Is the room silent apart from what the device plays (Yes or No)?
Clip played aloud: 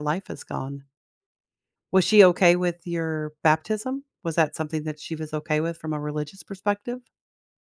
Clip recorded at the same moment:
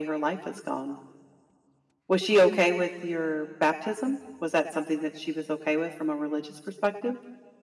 Yes